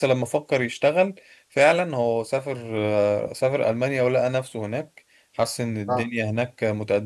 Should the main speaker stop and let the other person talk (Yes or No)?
No